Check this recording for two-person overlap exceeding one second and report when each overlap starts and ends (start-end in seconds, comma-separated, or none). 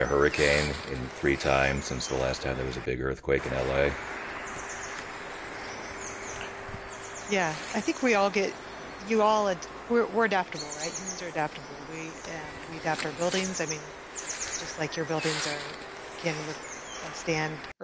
none